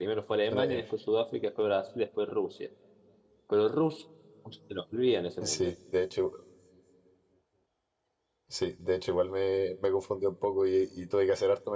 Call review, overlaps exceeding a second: none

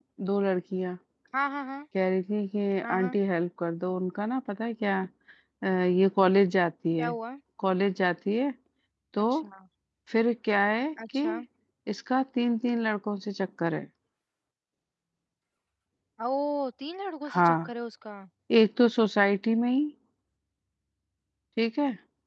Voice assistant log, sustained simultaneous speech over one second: none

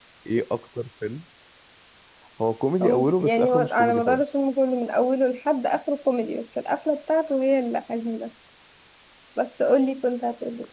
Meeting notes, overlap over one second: present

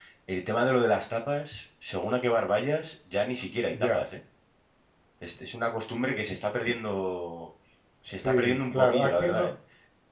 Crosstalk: present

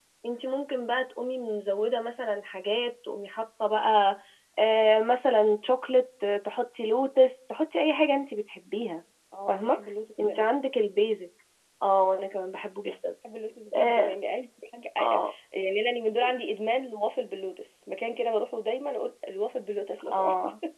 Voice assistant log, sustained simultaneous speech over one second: none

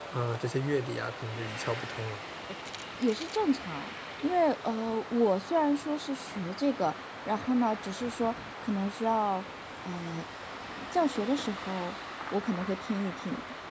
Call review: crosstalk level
none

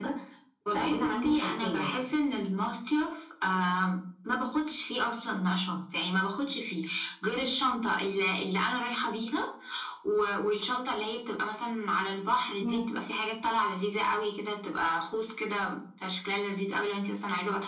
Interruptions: present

